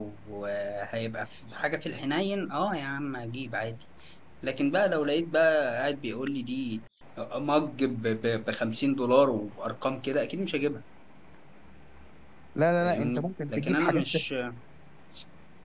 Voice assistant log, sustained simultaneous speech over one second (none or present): present